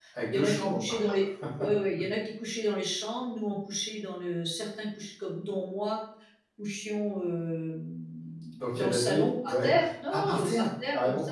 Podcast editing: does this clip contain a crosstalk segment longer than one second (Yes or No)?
Yes